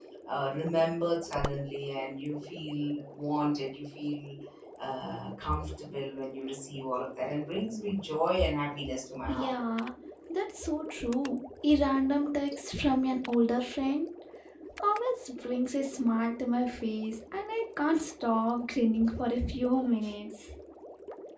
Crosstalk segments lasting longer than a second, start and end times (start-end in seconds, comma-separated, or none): none